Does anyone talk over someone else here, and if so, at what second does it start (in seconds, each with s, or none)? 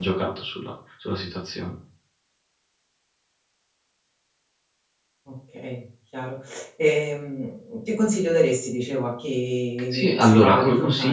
9.9 s